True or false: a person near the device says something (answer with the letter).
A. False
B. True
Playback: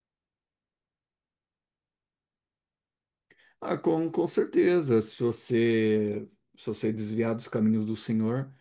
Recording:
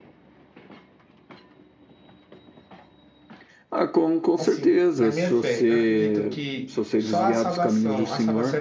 B